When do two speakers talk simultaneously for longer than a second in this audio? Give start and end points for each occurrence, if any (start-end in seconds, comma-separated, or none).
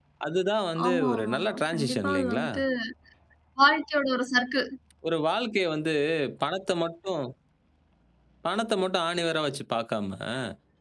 0.8-2.5